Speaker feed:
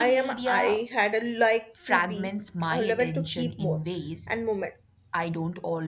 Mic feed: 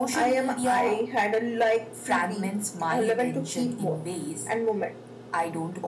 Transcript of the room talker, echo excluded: none

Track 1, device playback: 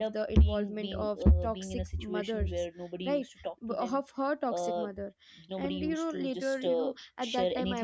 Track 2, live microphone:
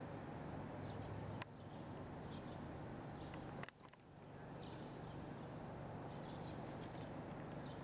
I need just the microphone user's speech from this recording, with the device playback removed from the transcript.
none

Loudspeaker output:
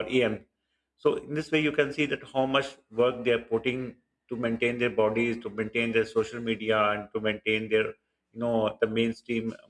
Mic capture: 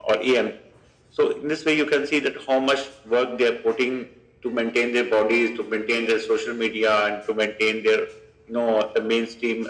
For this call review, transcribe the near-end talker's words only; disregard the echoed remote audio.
none

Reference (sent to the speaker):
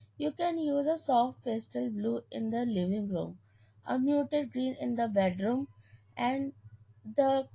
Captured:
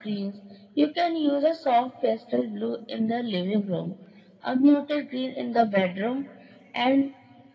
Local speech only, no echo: none

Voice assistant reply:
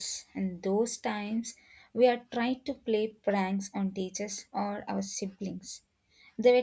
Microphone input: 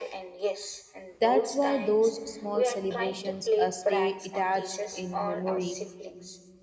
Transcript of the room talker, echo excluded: that's why those small celebrations uh, stay attached in memory

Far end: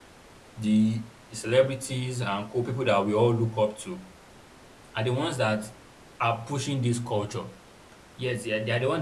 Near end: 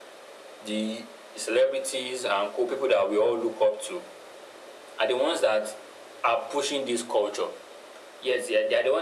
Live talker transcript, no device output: none

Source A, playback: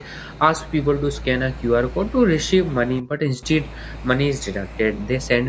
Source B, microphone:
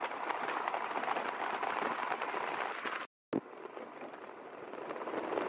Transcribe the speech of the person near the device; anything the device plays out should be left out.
none

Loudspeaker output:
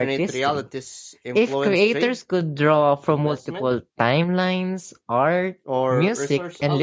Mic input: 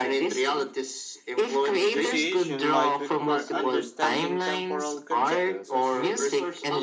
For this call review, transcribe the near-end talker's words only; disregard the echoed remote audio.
negotiation might require understanding temporal consequences.

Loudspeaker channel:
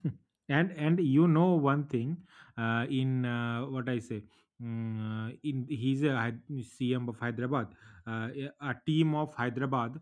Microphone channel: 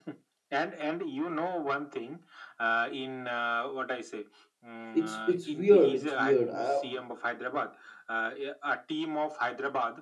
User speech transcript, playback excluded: it's it's weird it's weird uh,

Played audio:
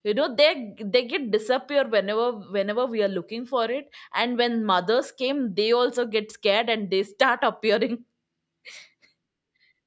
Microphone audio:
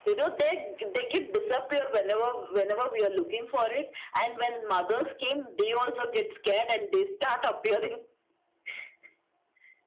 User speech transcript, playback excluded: none

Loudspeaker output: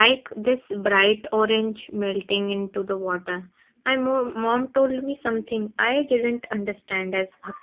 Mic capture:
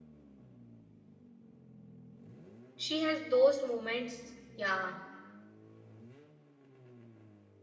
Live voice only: She has those moments. Yeah.

